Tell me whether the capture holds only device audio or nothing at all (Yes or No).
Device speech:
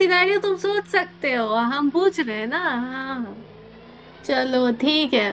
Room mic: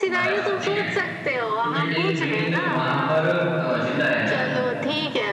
No